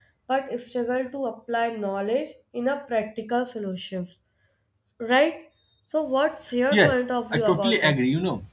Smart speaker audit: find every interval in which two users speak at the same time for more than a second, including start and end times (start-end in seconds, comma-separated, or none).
6.7-8.0